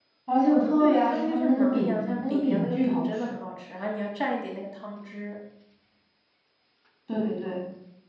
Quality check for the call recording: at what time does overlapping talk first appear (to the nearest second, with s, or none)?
1 s